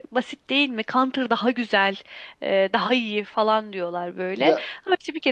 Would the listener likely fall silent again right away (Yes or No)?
Yes